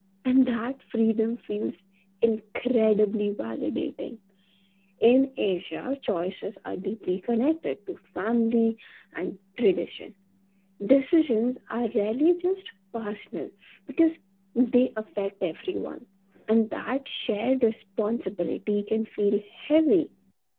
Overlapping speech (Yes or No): No